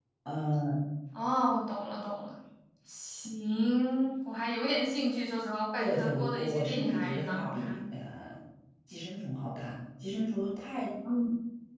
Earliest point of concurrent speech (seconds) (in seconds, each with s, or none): 5.8 s